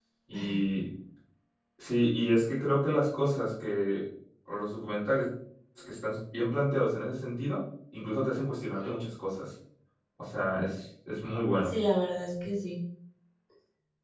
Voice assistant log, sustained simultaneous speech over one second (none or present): none